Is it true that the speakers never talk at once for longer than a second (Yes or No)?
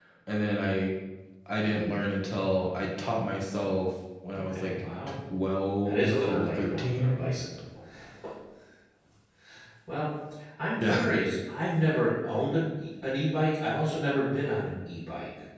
No